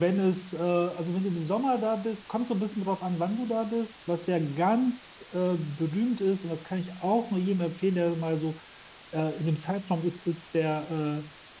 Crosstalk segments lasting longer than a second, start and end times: none

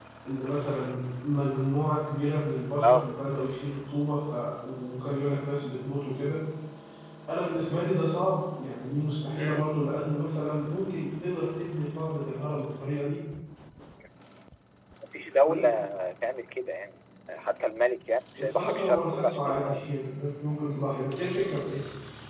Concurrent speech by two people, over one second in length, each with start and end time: 18.4-19.8

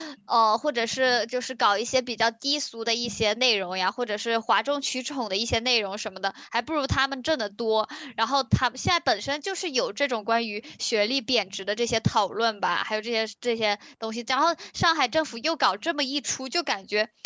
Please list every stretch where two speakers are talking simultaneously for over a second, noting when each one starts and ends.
none

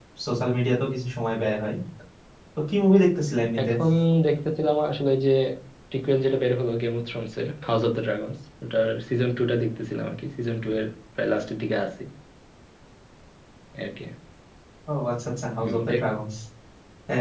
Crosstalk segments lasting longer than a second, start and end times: none

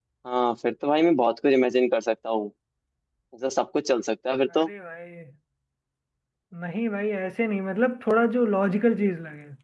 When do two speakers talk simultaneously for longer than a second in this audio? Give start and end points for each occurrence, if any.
none

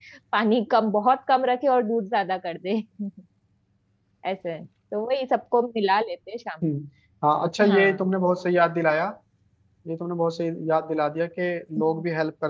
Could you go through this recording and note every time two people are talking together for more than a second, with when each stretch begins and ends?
none

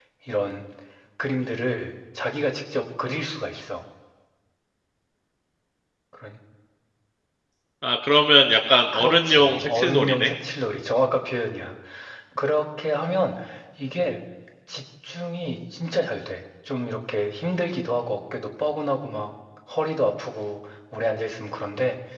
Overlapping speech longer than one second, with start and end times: 8.9-10.3

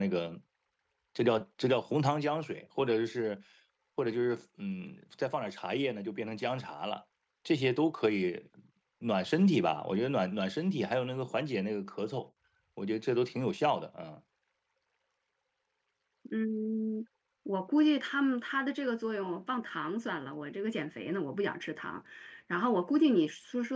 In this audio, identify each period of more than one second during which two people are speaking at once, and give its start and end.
none

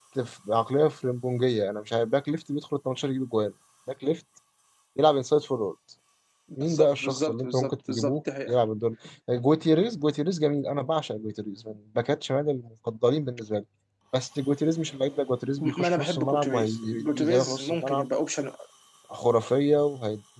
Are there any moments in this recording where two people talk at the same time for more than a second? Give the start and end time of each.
6.6-8.6, 15.6-18.0

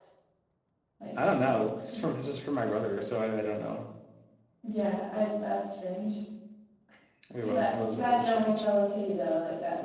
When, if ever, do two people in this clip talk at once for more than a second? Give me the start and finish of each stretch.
7.4-8.6

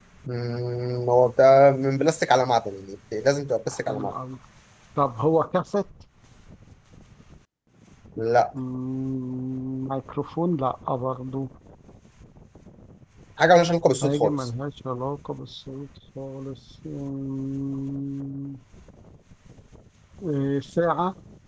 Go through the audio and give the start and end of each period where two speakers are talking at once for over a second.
none

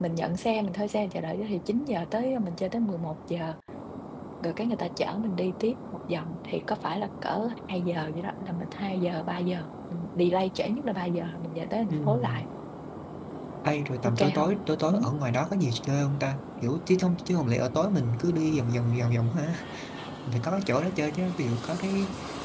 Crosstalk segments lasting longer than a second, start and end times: none

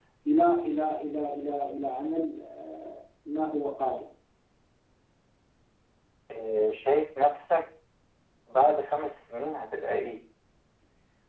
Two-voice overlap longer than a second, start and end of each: none

